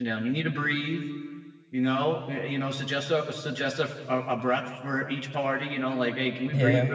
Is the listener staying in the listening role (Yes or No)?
Yes